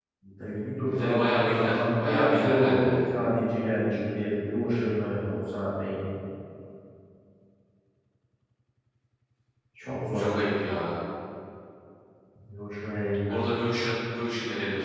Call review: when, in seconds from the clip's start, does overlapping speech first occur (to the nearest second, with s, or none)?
1 s